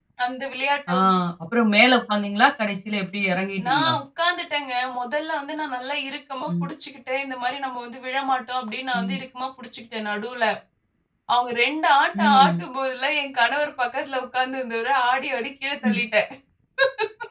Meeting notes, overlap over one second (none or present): none